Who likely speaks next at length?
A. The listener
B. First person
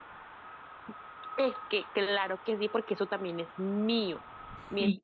B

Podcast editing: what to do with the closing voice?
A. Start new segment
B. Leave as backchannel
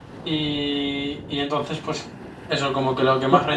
A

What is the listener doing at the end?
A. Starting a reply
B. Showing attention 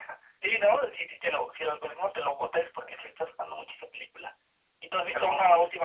B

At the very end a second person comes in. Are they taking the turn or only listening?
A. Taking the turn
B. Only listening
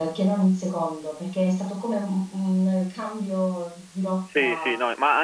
A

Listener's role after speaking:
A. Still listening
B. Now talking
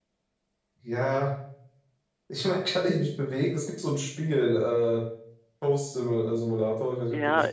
B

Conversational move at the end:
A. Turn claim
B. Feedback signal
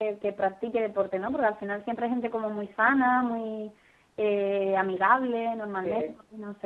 A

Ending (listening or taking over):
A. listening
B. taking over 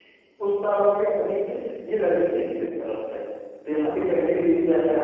A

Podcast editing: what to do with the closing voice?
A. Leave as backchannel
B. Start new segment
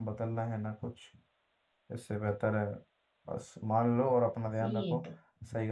A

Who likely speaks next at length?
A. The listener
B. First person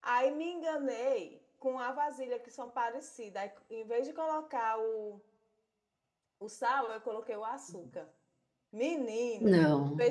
B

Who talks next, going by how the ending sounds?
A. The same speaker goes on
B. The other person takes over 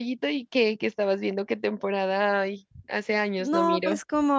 B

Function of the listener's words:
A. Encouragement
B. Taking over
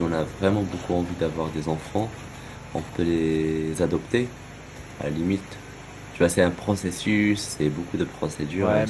B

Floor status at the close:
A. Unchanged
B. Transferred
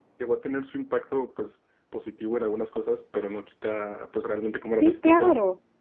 B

